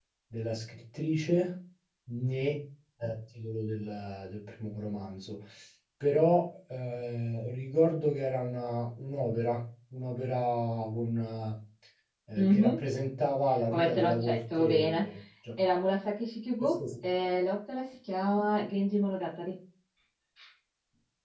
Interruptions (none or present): present